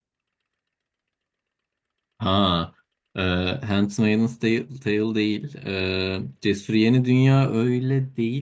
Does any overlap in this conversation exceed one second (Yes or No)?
No